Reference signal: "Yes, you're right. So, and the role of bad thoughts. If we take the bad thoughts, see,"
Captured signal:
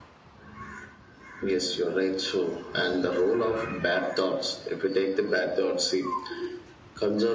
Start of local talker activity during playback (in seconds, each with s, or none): none